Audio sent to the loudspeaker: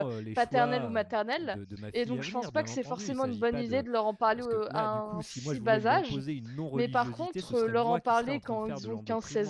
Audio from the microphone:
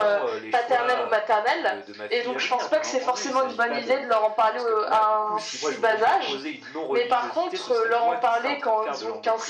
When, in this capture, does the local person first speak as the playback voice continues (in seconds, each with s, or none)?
none